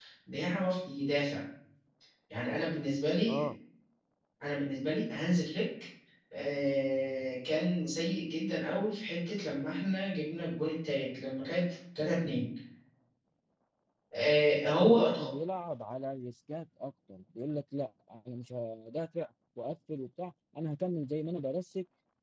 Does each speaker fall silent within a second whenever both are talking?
Yes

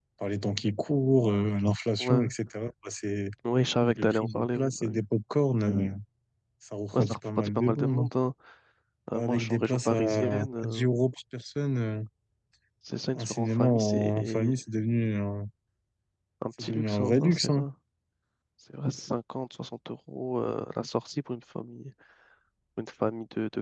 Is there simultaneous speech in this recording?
Yes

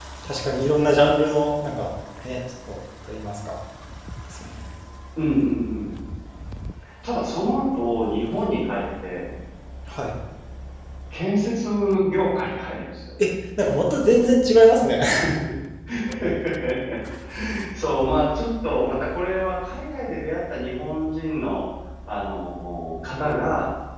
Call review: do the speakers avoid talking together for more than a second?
Yes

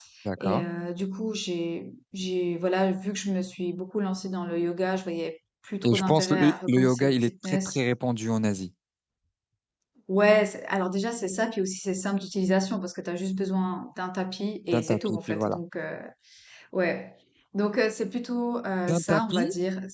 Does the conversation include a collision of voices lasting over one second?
Yes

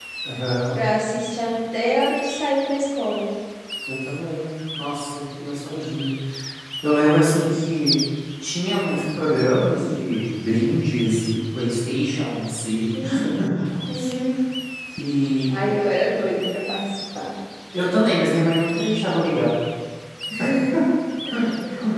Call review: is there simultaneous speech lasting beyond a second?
No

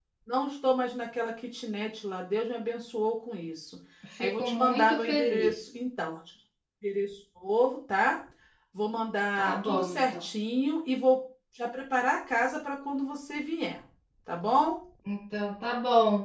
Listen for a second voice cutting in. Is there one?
Yes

